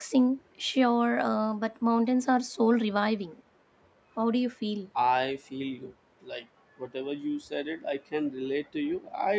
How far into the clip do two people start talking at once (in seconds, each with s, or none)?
none